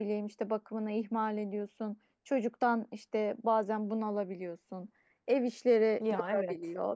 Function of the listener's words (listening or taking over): listening